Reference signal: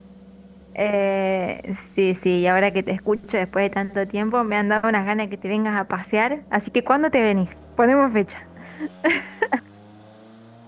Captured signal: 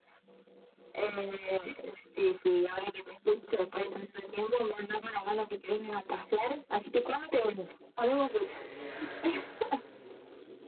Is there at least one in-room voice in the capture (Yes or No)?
Yes